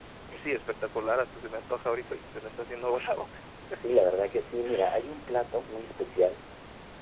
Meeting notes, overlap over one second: none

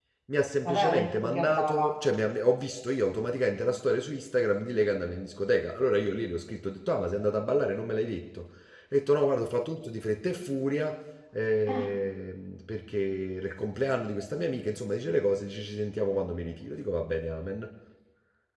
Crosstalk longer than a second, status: present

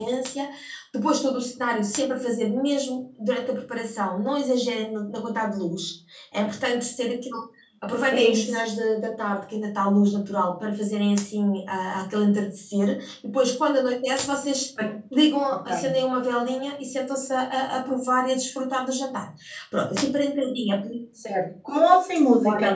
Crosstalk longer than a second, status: none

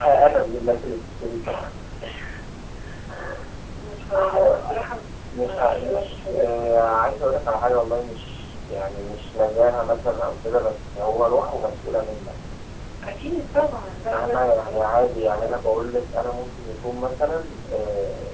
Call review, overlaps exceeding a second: present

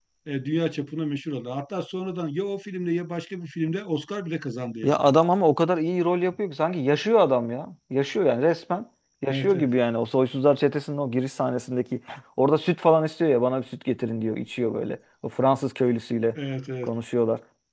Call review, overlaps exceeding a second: none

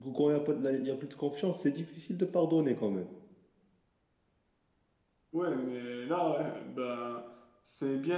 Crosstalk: none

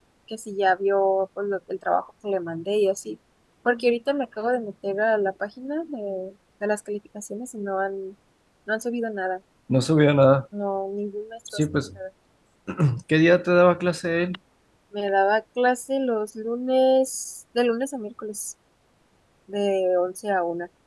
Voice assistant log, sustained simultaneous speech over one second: none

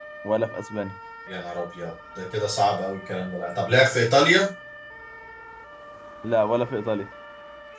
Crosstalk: none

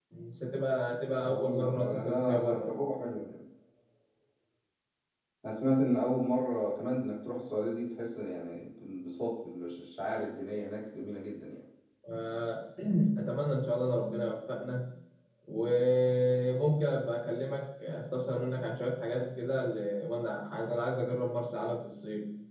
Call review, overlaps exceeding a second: present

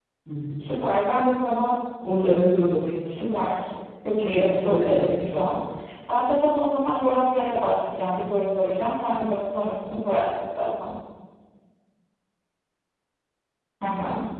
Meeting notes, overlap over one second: present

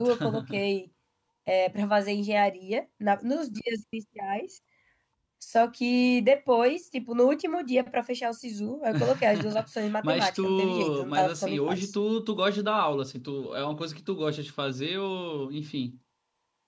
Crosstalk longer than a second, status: present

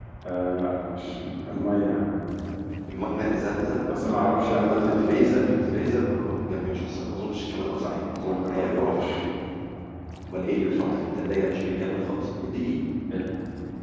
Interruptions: present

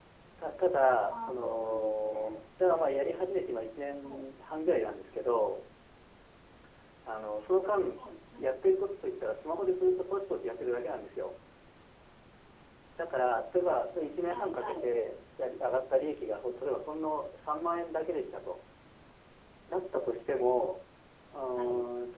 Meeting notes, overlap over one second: present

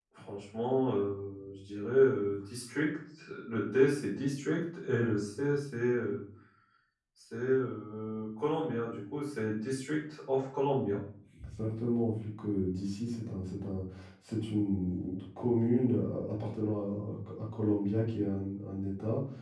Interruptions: none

